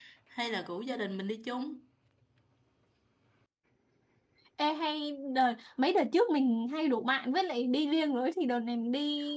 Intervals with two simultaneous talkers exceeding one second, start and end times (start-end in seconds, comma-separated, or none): none